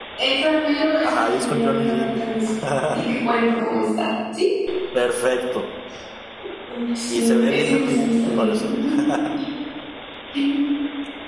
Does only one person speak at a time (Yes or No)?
No